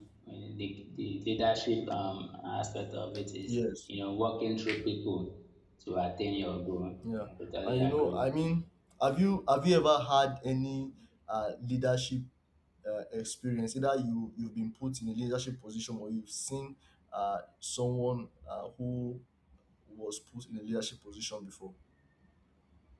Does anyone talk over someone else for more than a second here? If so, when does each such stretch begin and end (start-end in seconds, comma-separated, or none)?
7.3-8.5